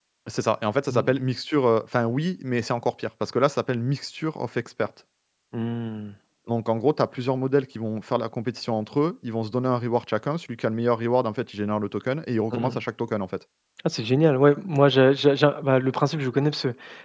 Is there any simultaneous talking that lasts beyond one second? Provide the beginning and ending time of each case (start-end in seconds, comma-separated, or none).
none